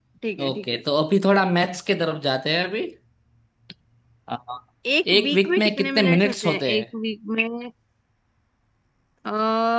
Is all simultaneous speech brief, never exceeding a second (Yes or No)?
No